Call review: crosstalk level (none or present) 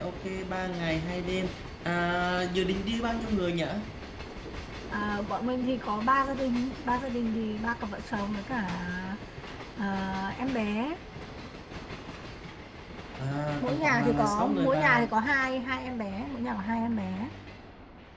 present